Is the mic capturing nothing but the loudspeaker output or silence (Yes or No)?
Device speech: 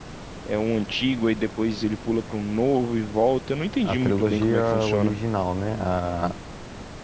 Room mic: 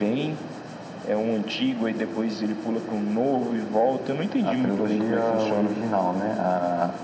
Yes